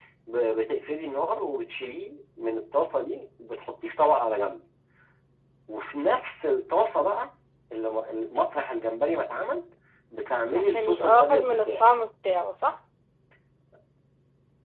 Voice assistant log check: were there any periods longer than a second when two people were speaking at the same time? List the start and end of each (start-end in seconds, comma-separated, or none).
10.5-11.8